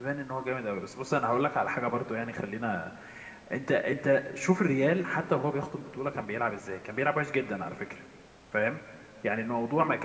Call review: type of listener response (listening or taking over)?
listening